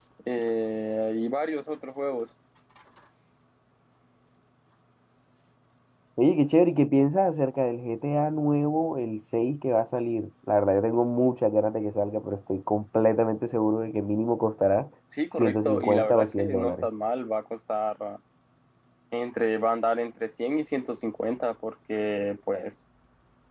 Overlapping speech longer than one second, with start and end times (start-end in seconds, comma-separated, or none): 15.3-16.9